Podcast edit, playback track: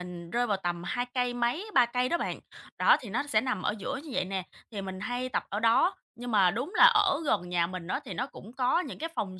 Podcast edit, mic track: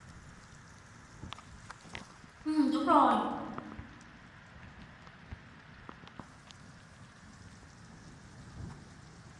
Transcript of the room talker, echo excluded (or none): Ừm, đúng rồi.